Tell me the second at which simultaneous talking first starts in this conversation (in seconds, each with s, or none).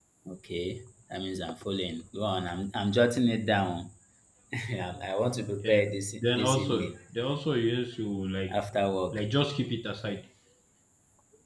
5.6 s